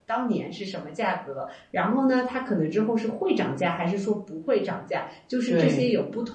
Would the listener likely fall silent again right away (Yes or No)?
Yes